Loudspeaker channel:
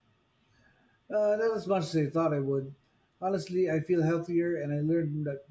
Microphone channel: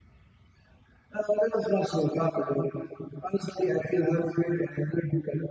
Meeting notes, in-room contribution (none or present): none